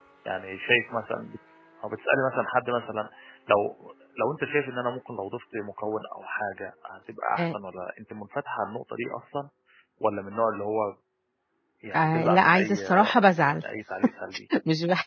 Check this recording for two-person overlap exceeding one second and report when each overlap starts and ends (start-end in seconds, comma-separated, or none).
11.9-13.6